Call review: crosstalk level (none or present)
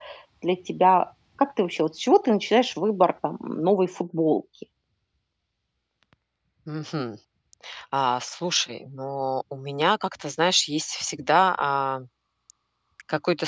none